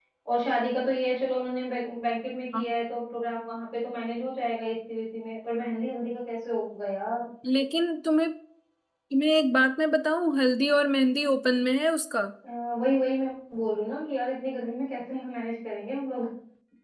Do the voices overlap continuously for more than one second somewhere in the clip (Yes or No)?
No